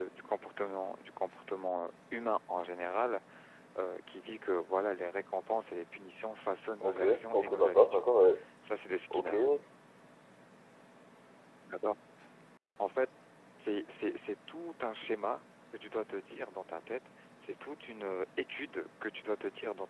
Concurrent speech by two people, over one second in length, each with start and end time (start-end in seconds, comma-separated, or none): 6.8-8.1